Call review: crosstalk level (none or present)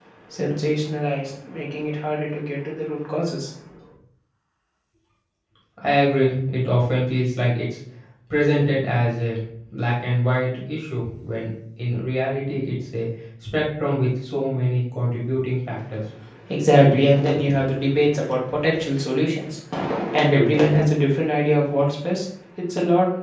none